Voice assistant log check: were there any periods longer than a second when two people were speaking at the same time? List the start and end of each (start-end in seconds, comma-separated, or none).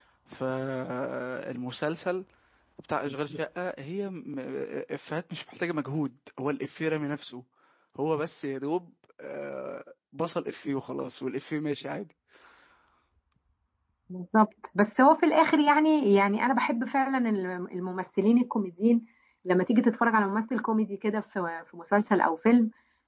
none